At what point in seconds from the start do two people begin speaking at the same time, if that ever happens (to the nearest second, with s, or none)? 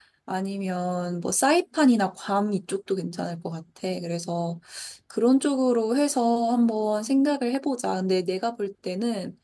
none